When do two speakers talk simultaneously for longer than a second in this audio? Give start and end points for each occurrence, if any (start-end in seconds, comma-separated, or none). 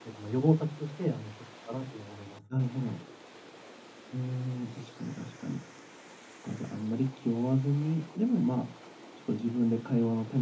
none